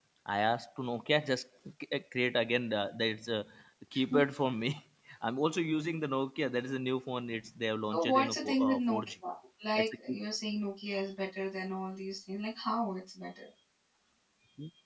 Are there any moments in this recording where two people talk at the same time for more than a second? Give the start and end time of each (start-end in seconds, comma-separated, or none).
7.9-9.1